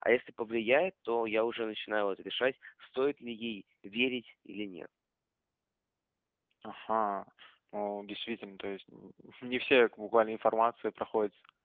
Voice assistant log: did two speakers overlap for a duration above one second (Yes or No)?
No